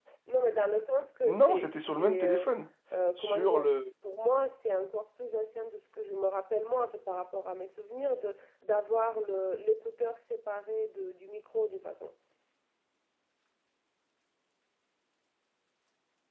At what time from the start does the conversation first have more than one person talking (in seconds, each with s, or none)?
1.2 s